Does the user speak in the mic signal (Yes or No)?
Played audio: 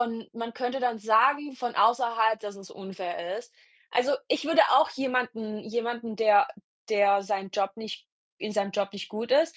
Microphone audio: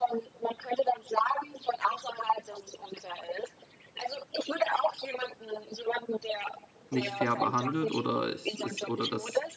Yes